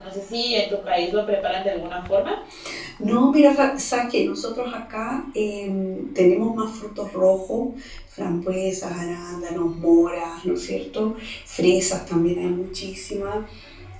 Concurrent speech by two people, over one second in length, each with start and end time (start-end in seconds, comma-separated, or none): none